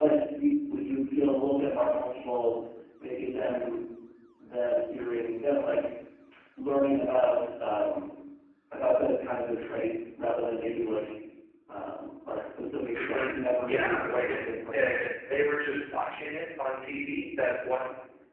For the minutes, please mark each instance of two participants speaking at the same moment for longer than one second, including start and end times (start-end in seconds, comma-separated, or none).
13.7-15.0